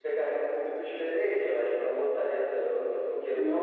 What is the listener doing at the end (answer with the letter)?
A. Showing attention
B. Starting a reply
B